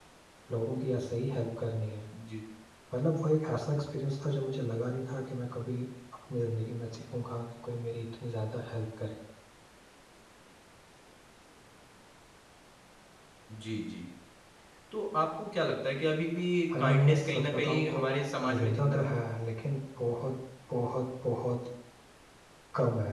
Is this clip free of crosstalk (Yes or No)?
No